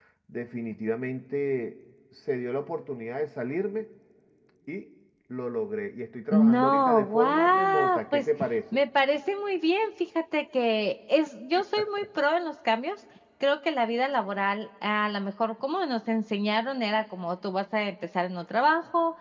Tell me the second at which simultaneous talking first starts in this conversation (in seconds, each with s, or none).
6.3 s